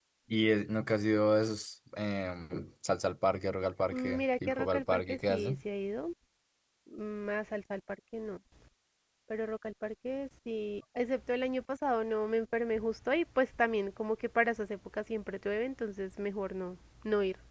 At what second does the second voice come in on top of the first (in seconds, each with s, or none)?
3.9 s